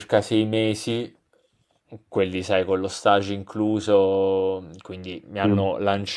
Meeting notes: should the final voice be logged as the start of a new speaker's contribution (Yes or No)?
No